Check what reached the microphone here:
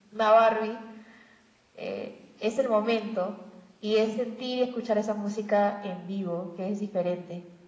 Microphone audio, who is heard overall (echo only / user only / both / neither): echo only